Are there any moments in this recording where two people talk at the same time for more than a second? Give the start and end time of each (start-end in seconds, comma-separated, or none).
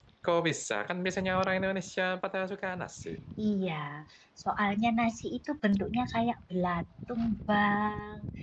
none